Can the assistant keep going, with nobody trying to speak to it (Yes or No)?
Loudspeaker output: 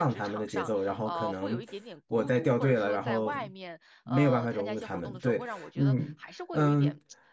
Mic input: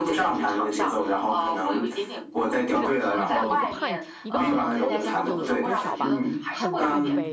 No